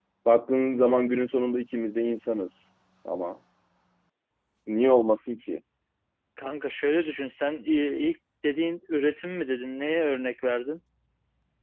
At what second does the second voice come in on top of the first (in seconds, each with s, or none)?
none